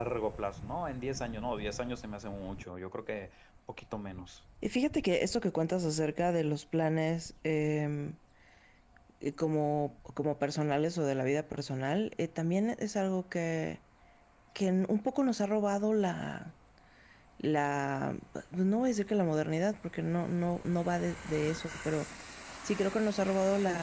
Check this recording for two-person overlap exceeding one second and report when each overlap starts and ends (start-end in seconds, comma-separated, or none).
none